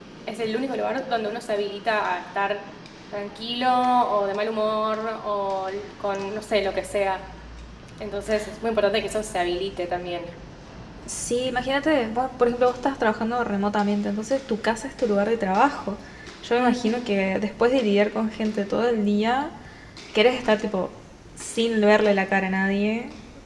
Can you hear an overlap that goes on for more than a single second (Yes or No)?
No